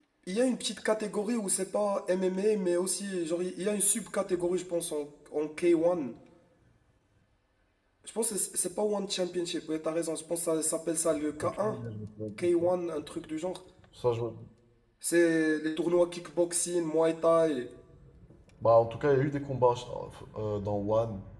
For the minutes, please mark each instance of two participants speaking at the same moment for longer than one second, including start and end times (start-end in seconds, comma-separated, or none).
none